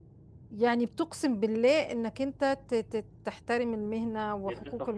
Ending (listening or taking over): taking over